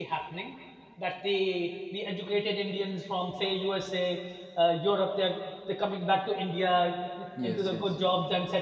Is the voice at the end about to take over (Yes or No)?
No